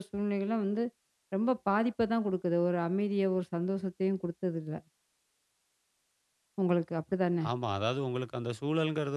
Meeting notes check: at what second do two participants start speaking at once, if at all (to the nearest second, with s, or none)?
none